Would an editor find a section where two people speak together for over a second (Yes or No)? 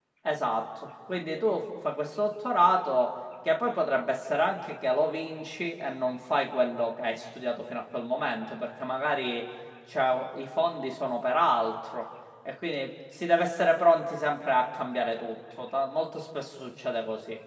No